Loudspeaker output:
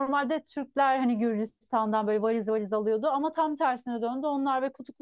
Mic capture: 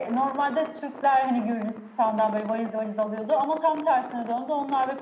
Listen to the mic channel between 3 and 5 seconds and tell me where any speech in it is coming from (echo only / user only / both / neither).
echo only